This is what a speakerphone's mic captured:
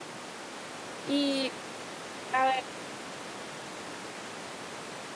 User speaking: Yes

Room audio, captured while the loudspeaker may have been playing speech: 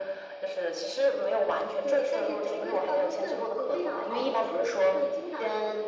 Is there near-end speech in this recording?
No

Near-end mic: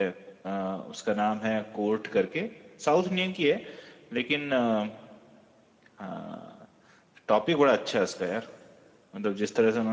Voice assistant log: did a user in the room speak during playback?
Yes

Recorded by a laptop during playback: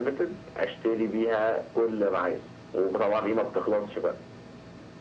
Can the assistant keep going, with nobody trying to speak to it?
Yes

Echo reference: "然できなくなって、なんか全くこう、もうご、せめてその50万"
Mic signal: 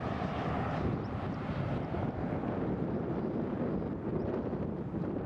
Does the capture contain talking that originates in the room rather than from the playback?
No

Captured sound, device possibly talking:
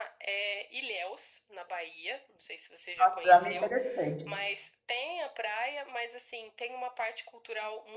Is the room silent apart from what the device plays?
No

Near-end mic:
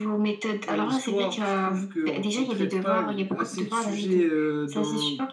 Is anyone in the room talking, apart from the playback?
Yes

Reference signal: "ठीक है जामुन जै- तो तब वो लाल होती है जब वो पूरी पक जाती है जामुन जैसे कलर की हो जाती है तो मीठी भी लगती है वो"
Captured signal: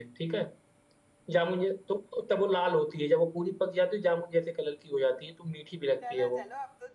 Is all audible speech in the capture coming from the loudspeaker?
No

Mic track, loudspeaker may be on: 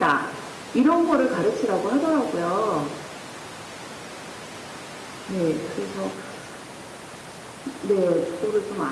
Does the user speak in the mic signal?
No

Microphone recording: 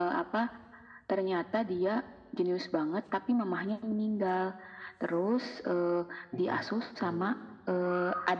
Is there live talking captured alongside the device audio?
Yes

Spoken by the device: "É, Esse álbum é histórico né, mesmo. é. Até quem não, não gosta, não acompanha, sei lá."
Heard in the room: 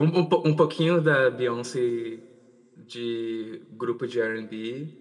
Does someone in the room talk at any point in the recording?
Yes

